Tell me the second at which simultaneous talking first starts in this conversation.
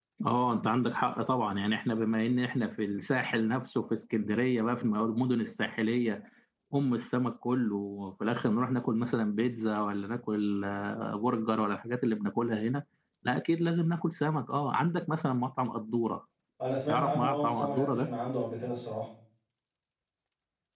17 s

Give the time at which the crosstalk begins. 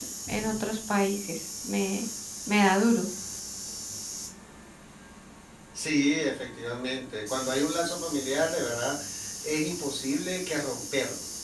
none

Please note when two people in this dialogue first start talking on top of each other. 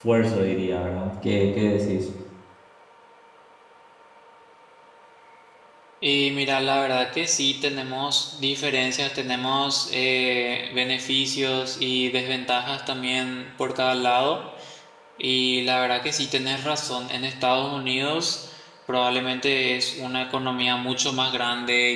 none

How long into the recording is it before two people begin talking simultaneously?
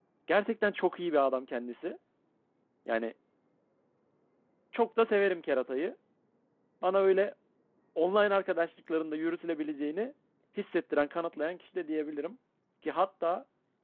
none

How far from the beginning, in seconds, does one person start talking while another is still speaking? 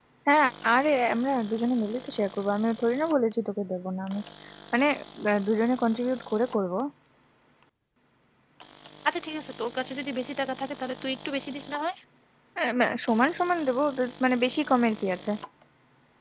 none

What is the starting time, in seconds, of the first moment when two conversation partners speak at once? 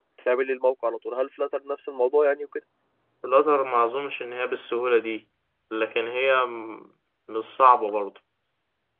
none

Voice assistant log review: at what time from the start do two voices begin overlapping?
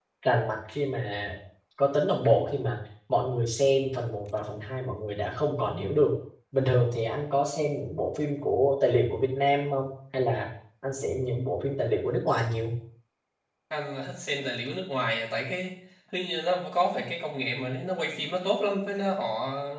none

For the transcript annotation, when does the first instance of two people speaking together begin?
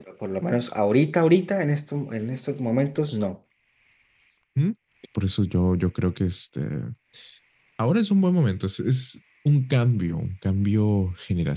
none

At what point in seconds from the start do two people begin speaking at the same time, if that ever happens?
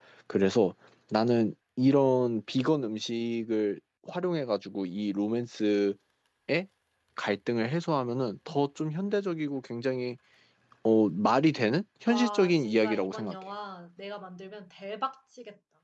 12 s

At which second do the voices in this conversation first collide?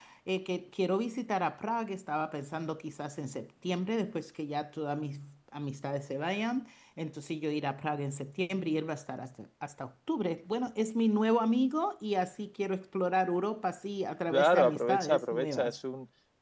14 s

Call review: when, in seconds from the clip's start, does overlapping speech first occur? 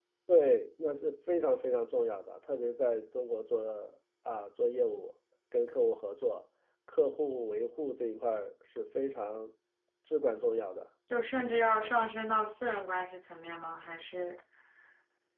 none

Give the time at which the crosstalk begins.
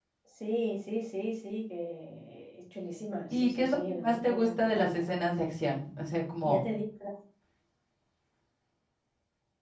3 s

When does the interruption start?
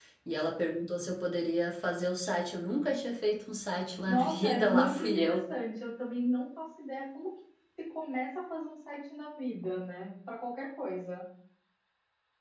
4 s

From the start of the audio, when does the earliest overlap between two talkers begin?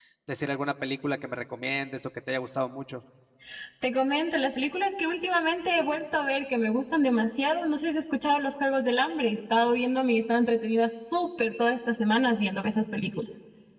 none

